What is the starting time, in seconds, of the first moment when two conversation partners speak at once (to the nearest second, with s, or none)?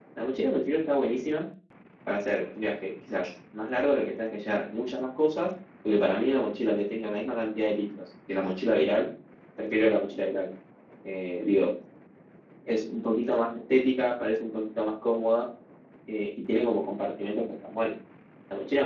none